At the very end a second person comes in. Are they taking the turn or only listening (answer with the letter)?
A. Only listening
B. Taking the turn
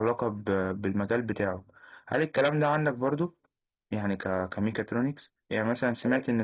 A